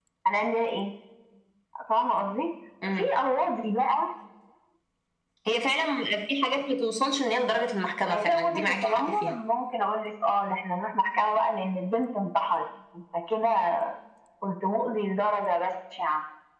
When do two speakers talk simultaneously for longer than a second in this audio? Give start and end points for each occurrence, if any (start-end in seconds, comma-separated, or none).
8.1-9.3